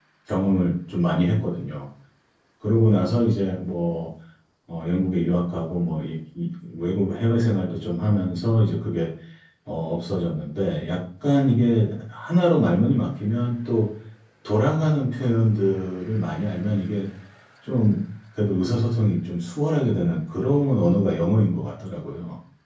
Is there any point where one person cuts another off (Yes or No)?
No